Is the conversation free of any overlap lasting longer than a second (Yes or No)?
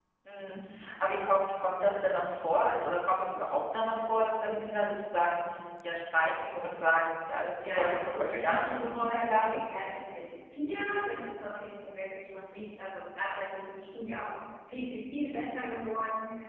No